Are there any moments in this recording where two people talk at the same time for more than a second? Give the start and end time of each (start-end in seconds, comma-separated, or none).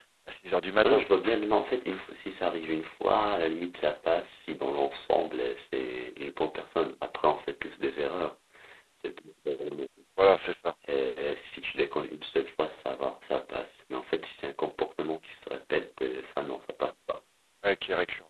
none